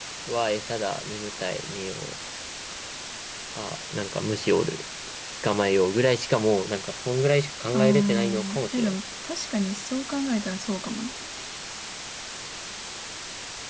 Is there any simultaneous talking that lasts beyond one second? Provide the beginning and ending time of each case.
7.7-8.9

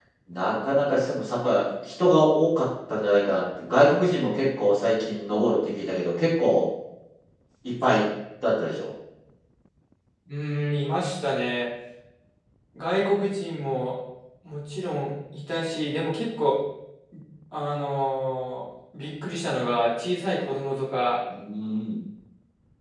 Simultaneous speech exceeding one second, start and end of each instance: none

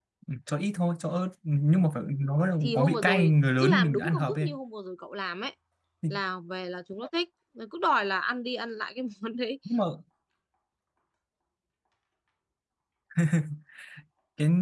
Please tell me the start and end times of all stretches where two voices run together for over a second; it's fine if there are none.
2.6-4.5

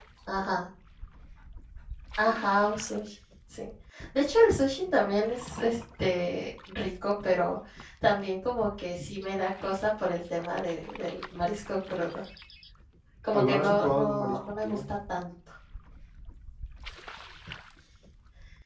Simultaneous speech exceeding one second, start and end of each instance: 13.3-14.8

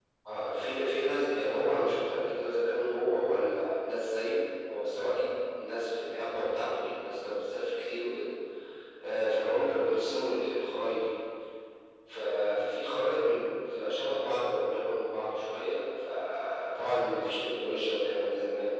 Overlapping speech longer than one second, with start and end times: none

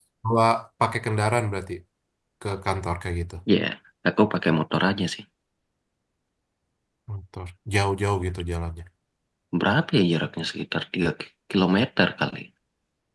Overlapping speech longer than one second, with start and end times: none

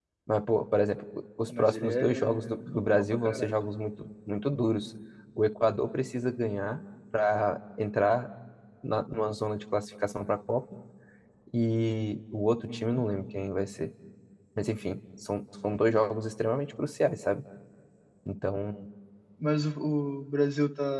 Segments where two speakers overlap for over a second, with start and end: 1.4-3.5

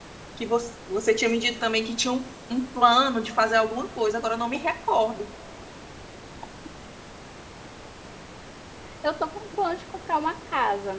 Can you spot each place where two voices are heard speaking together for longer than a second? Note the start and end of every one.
none

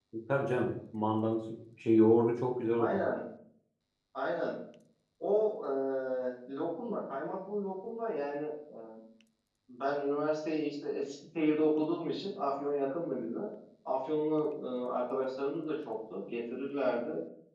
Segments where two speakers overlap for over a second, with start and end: none

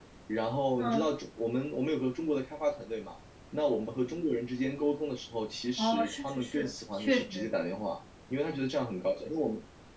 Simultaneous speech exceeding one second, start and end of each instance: 5.8-7.5

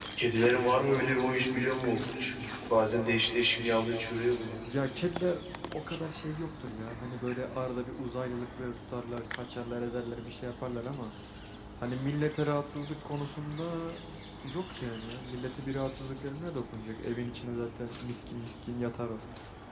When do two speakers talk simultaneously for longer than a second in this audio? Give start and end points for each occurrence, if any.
none

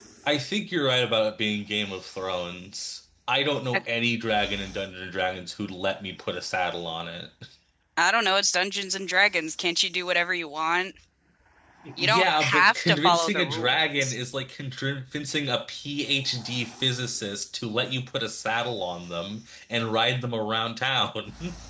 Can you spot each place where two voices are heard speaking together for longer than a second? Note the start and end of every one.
12.0-14.2

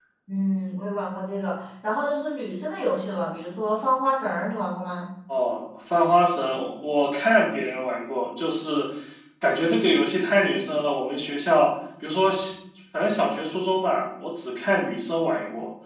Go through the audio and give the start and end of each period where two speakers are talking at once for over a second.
none

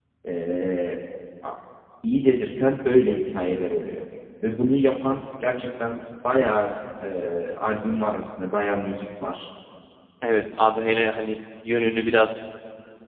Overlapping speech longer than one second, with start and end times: none

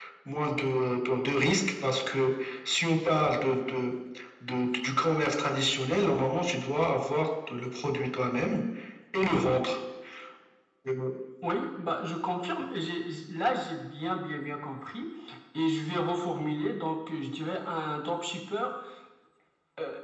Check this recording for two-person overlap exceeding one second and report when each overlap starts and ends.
none

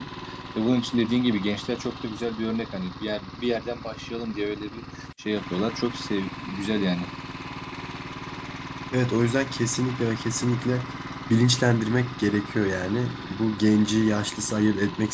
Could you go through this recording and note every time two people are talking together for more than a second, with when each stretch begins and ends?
none

